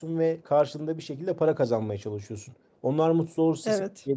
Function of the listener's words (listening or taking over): listening